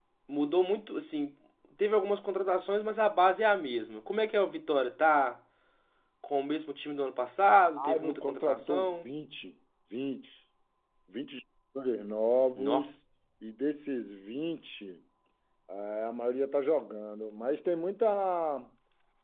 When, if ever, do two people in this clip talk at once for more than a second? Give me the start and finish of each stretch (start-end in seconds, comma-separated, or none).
7.8-9.0